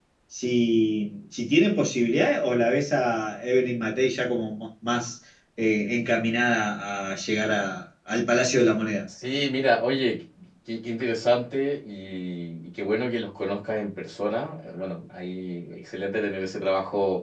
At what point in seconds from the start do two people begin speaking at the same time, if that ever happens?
none

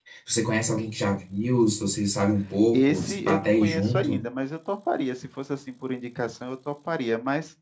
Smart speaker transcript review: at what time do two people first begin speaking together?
2.7 s

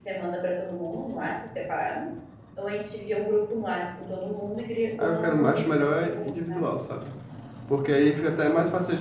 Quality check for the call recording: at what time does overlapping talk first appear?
5.0 s

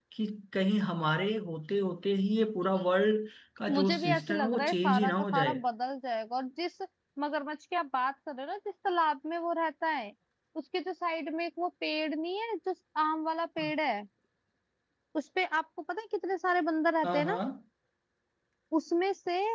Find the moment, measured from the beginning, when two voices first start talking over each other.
3.7 s

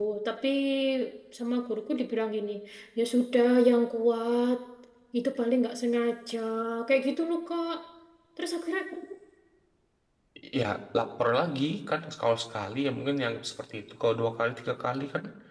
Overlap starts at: none

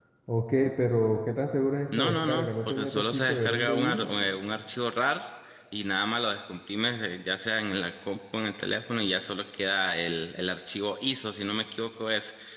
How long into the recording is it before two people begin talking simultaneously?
1.9 s

